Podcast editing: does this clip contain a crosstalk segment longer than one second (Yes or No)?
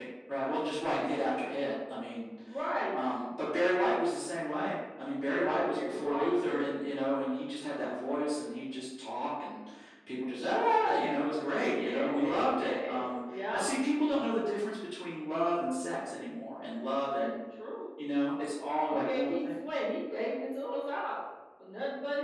Yes